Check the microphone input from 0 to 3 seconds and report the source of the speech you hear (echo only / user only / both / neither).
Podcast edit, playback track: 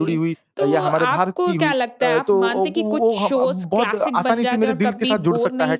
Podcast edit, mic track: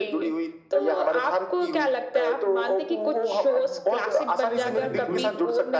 echo only